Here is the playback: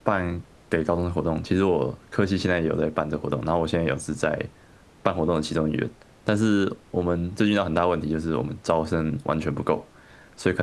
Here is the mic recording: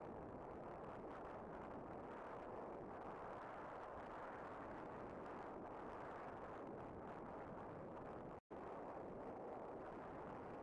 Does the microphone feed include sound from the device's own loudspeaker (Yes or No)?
No